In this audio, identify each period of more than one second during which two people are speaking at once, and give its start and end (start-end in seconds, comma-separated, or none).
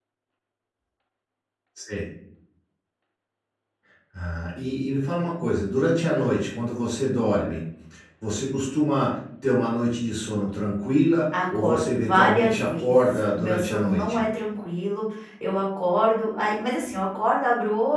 11.5-14.2